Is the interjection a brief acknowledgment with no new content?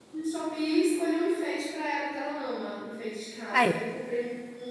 Yes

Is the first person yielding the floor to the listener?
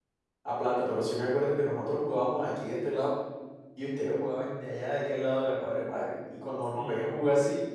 No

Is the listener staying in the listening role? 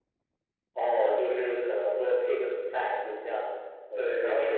No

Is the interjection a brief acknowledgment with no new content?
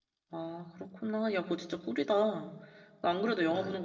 Yes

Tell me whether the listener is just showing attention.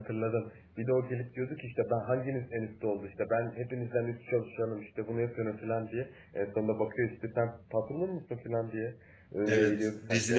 No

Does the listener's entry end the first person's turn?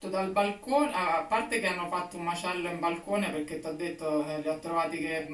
No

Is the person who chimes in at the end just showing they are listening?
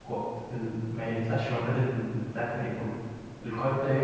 Yes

